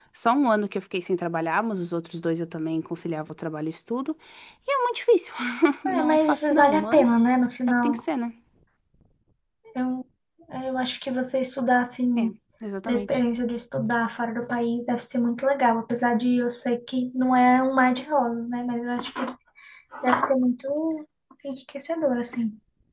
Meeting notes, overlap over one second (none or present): present